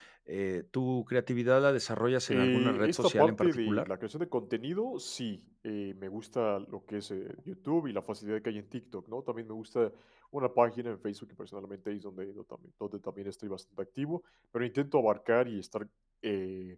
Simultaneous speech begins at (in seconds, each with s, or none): 2.3 s